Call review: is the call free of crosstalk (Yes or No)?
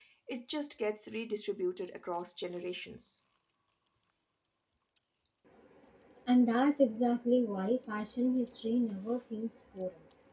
Yes